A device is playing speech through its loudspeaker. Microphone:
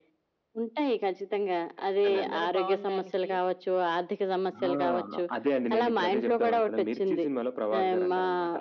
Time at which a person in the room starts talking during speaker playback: 2.2 s

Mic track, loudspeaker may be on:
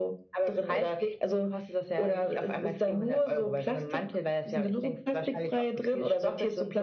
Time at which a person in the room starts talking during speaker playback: none

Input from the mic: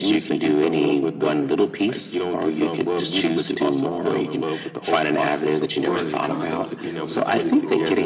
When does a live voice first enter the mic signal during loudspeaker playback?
5.8 s

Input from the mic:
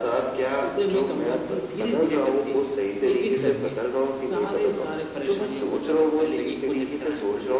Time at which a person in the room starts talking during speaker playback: 3.4 s

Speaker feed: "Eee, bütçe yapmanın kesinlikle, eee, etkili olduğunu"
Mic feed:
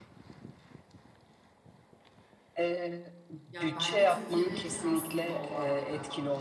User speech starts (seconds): 3.5 s

